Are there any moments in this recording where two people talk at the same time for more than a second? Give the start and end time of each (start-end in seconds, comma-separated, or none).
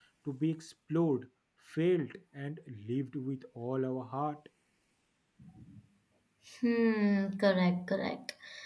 none